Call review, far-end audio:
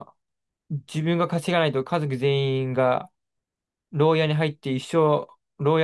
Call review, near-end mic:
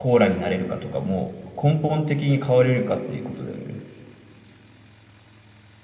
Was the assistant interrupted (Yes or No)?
Yes